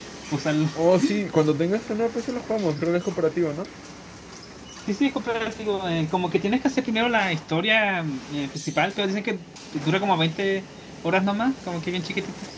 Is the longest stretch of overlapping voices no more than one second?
Yes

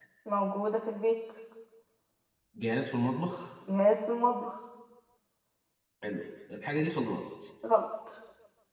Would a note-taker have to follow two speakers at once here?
No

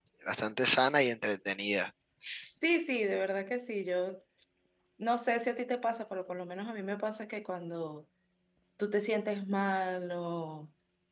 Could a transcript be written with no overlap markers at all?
Yes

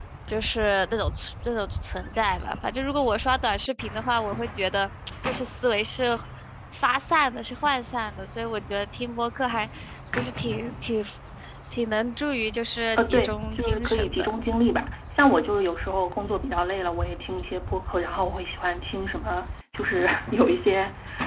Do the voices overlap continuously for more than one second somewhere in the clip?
Yes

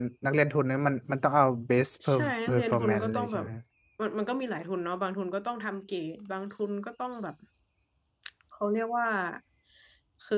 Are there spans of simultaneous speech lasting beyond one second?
Yes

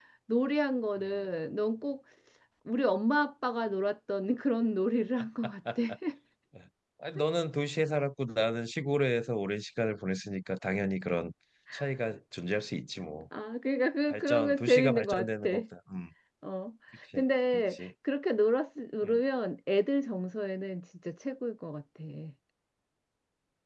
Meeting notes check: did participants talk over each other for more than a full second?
Yes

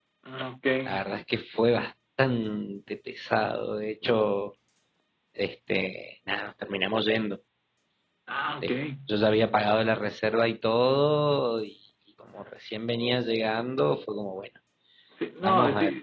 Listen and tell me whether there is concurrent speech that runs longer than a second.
No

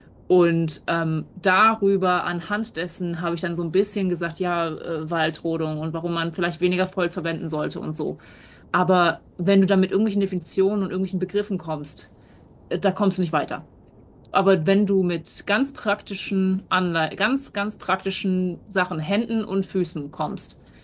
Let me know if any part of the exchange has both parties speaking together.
No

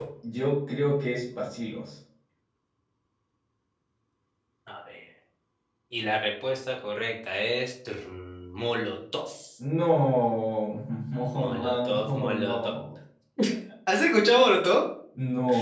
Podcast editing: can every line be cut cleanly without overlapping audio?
No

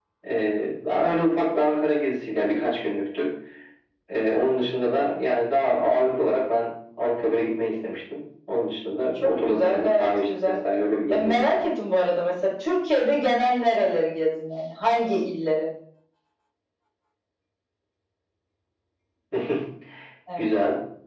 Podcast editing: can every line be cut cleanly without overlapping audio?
No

